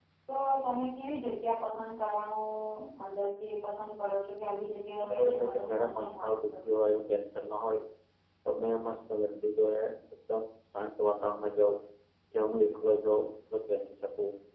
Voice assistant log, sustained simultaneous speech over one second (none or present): present